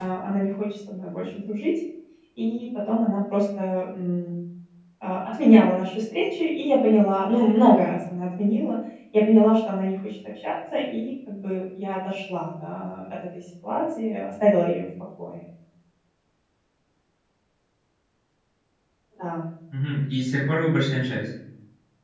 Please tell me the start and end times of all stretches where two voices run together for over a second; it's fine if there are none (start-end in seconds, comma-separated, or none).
none